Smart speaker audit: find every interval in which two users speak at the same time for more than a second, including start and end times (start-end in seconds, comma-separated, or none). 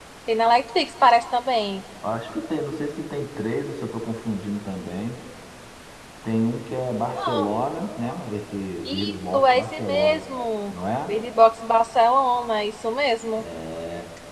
8.8-10.2